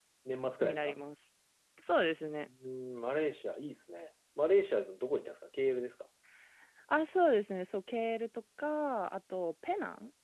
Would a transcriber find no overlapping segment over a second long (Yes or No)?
Yes